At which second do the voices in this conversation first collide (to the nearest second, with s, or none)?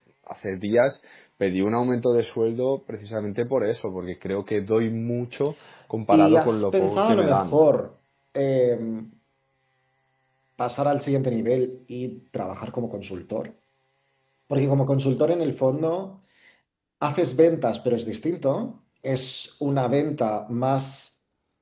6 s